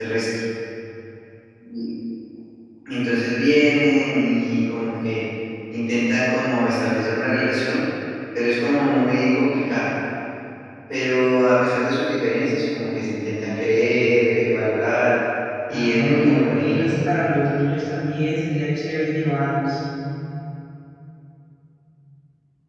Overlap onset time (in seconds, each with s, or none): 15.7 s